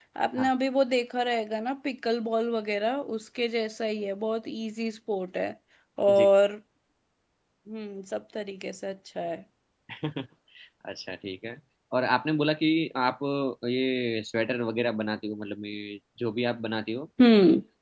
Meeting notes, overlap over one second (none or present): none